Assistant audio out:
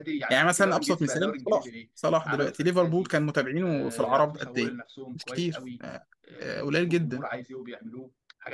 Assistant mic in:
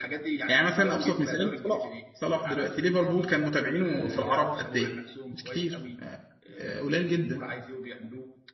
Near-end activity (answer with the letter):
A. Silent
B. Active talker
A